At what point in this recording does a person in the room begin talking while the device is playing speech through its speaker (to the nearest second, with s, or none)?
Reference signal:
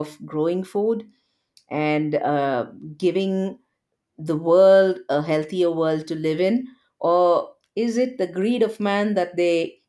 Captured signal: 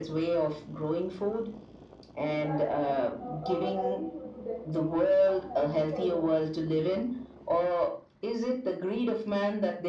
2 s